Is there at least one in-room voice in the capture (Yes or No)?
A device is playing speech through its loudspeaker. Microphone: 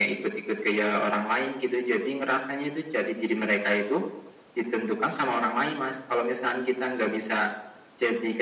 No